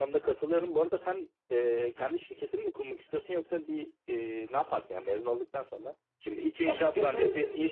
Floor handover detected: No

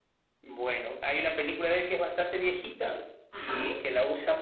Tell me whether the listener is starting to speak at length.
No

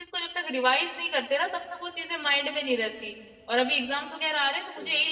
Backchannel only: Yes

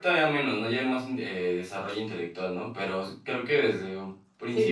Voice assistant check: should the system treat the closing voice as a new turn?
Yes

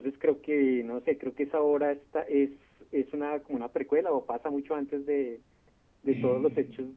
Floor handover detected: No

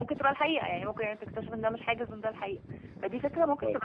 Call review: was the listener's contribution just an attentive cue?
No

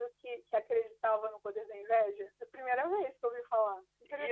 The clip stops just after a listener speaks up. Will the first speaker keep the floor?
No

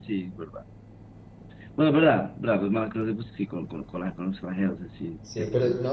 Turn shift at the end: Yes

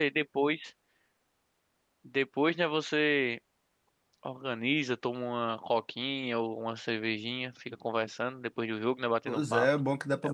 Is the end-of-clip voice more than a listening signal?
Yes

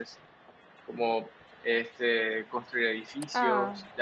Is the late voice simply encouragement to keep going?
Yes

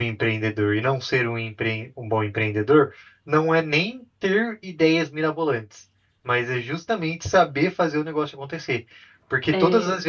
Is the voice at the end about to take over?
No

